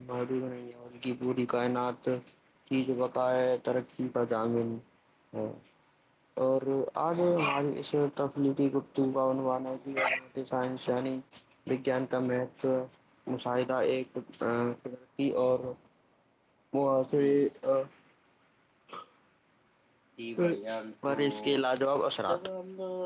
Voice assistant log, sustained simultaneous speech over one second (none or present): none